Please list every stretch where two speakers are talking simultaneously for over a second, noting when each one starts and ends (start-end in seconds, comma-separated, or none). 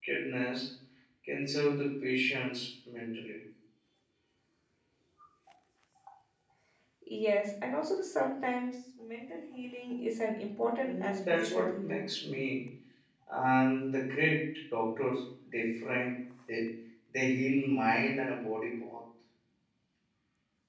10.8-12.0